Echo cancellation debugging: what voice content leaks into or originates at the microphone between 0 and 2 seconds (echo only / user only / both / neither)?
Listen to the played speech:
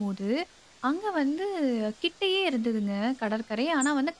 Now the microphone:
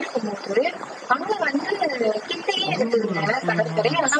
echo only